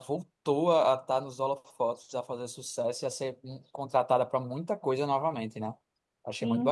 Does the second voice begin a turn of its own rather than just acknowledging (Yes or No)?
Yes